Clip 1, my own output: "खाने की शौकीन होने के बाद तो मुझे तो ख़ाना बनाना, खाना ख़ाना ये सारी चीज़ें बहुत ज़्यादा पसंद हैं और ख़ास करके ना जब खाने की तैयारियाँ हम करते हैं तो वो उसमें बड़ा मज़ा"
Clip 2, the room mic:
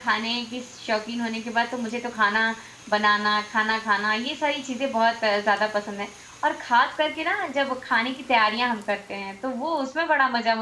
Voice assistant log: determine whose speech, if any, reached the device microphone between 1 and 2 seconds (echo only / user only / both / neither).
echo only